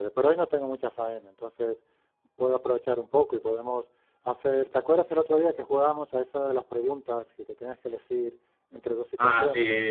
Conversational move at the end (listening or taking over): taking over